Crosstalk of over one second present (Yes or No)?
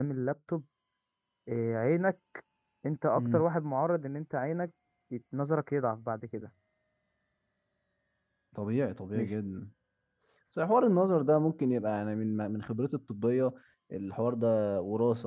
No